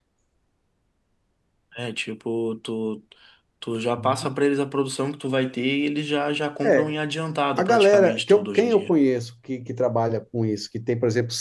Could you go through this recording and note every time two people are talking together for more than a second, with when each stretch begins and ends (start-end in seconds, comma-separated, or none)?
7.6-8.9